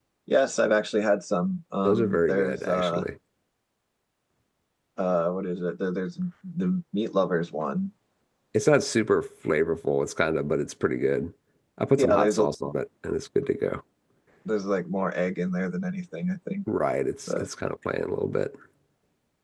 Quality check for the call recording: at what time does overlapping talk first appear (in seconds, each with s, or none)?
1.9 s